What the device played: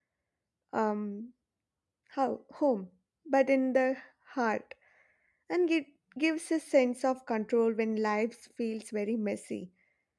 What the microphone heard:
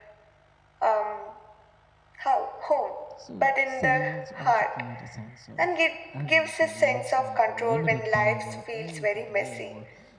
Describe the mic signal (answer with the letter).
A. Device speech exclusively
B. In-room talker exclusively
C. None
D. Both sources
D